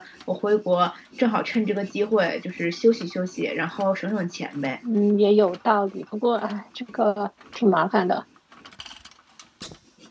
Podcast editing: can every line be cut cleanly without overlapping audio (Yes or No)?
Yes